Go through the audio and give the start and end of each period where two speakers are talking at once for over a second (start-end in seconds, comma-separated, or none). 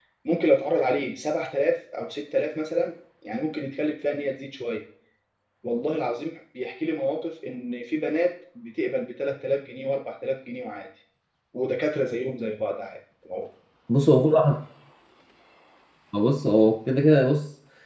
none